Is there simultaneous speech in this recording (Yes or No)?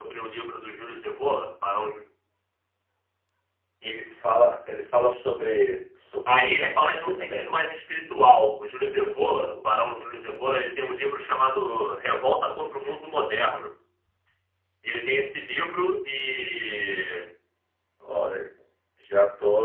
Yes